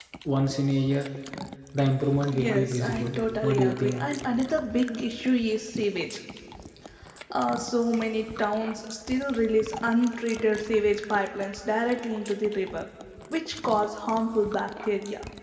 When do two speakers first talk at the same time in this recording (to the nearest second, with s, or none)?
2 s